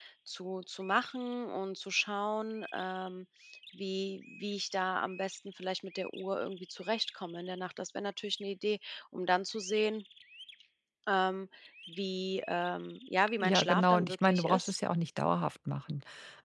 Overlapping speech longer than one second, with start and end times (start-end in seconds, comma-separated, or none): 13.4-14.7